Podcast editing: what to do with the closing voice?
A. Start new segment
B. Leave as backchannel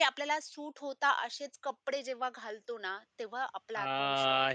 A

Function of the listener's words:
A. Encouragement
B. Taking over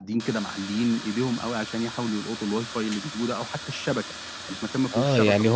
B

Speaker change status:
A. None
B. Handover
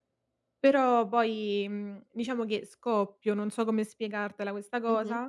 B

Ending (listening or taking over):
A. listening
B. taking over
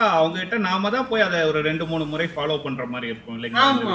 B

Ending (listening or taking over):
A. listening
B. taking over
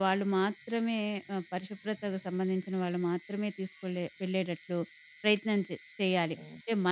A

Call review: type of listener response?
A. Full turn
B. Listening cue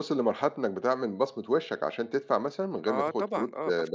A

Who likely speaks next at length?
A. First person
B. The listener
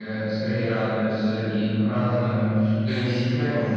A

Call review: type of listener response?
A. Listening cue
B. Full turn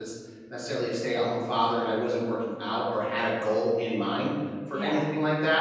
A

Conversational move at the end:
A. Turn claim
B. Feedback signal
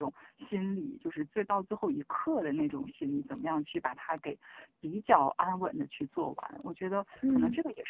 B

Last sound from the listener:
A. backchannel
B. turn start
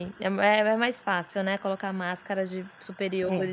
A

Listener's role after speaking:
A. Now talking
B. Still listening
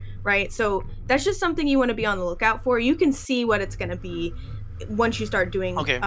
B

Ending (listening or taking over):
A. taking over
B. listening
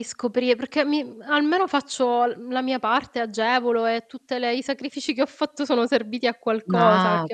A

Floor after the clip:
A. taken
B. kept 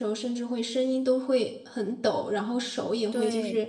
B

